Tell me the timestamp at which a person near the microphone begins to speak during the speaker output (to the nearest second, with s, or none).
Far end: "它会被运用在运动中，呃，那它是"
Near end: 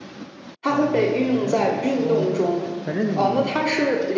1 s